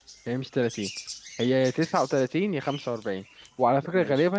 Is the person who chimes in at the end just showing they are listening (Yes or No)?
Yes